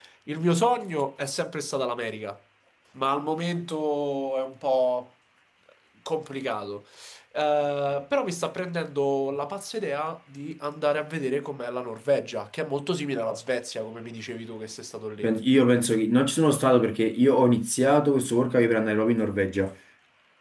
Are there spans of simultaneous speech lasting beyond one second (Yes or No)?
No